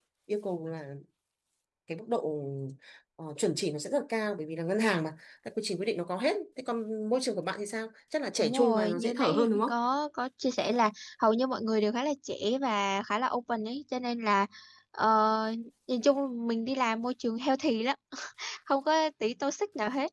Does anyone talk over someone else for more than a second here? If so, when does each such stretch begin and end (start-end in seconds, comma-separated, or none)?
8.4-9.7